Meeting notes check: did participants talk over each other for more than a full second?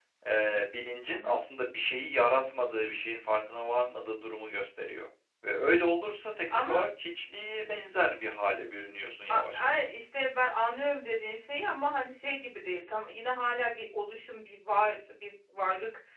No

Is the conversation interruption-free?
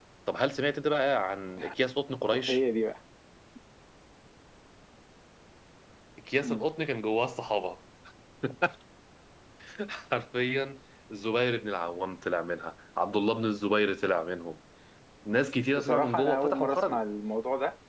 No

